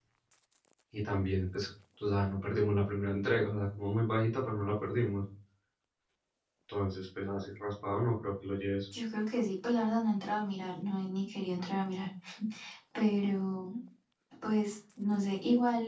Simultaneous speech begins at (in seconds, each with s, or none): none